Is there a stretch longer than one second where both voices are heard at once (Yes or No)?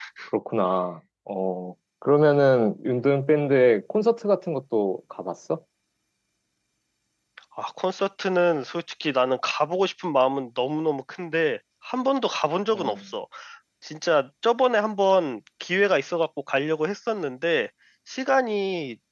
No